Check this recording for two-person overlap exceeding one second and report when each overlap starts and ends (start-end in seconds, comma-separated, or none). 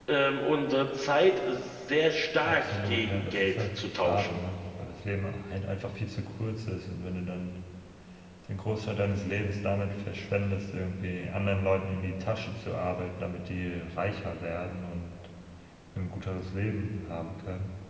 2.4-4.4